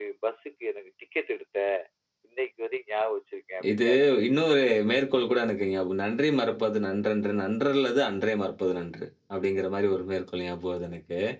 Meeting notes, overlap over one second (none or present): none